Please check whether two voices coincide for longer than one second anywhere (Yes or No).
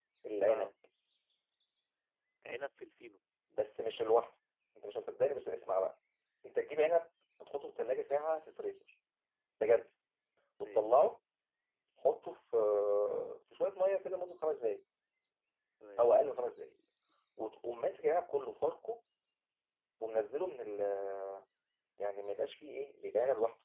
No